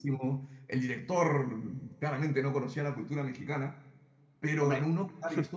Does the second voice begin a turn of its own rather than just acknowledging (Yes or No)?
No